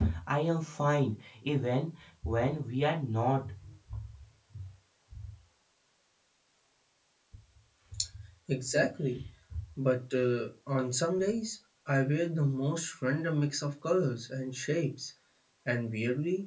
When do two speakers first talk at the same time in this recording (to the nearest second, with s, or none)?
none